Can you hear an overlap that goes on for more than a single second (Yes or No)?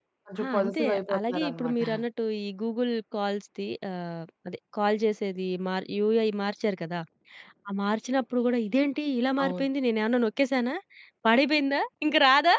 Yes